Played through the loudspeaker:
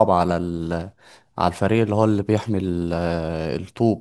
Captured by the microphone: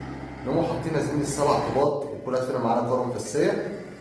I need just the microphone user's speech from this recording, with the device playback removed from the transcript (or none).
نقوموا حاطين يا زميلي السبع طوبات وكل واحد فينا معانا كورة مفسية